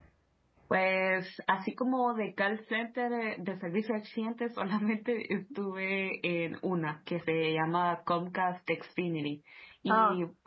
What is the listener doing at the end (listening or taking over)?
listening